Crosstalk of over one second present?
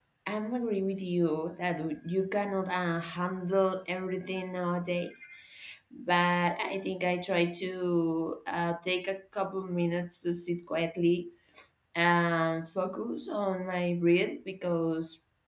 No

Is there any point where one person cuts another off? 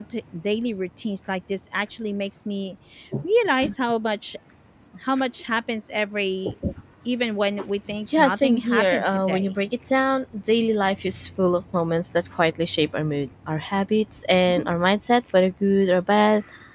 Yes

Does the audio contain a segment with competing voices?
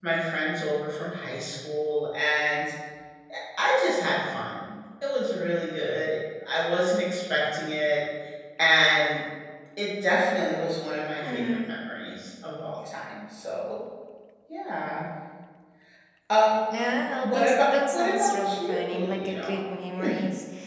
Yes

